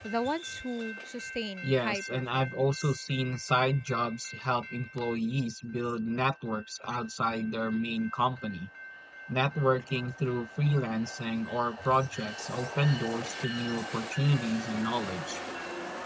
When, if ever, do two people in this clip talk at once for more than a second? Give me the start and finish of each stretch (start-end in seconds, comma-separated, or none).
1.7-2.9